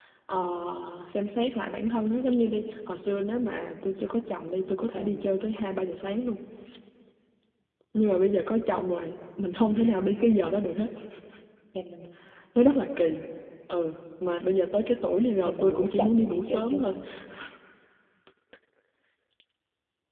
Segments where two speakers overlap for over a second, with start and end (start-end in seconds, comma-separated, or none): 15.4-16.9